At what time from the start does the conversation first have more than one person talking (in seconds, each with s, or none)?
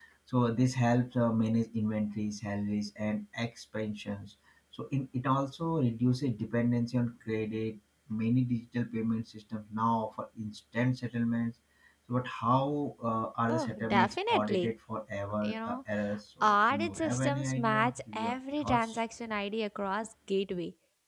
13.5 s